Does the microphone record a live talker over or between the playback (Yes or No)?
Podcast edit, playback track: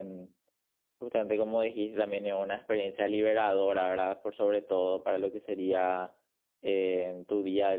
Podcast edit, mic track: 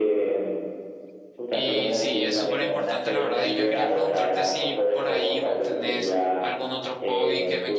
Yes